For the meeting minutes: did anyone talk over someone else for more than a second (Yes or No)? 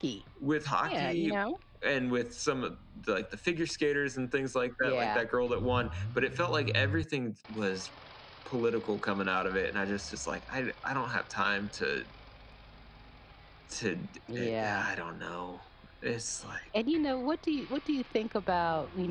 No